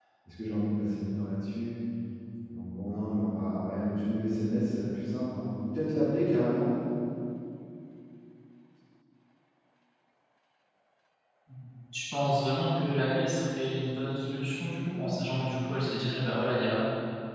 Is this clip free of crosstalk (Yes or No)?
Yes